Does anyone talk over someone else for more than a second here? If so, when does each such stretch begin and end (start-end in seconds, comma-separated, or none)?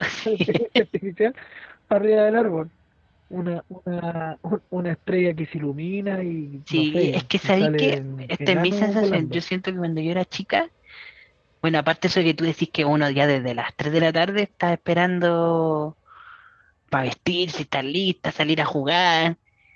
6.7-9.4